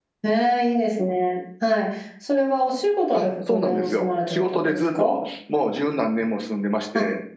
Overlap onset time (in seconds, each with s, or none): 3.1 s